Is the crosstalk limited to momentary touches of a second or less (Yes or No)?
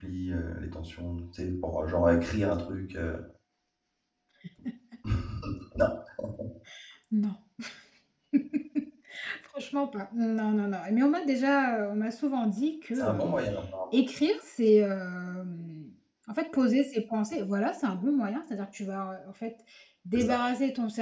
Yes